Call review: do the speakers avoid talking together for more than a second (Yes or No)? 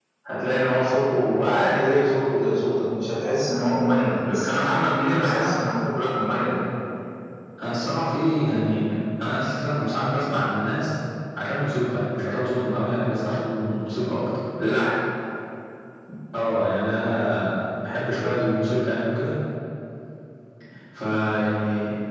Yes